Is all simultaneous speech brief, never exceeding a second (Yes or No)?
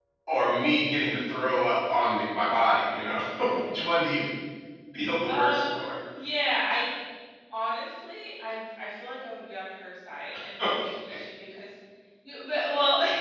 Yes